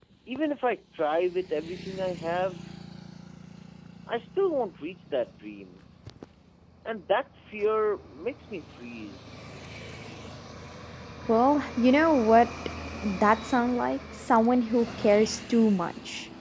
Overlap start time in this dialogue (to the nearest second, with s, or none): none